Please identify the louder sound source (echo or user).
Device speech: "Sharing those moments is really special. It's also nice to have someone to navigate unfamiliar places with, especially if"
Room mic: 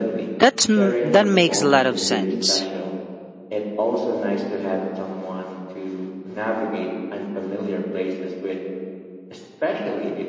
user